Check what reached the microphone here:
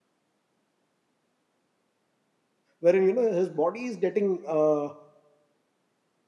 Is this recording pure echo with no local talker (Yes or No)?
No